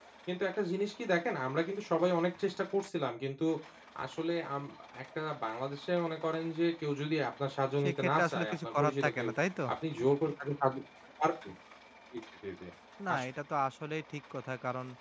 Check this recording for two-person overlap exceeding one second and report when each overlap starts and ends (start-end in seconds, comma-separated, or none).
7.8-9.3